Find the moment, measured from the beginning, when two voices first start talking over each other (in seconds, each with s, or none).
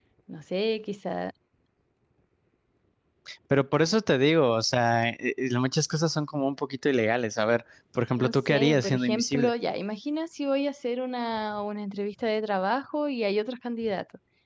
8.2 s